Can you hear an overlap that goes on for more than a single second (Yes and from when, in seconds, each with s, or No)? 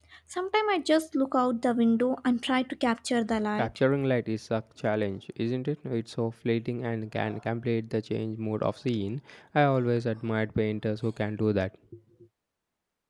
No